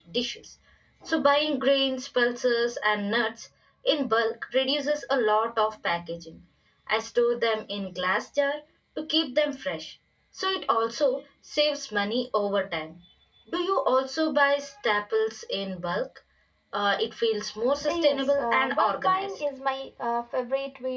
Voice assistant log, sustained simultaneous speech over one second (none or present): present